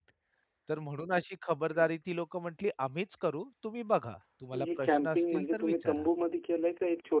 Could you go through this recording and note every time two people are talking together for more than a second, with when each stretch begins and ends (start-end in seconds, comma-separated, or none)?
4.5-6.1